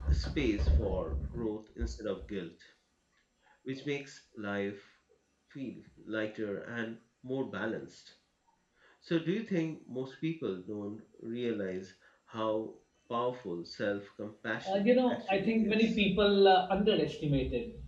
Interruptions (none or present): present